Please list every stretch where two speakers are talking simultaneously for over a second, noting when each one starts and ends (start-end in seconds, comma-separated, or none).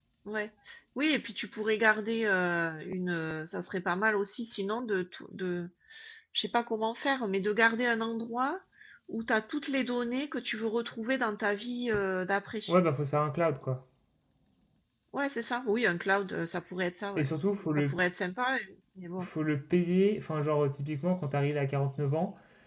none